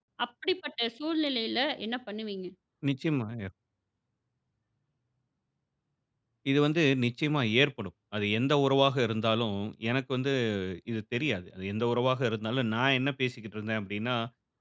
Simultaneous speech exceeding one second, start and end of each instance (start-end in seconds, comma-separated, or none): none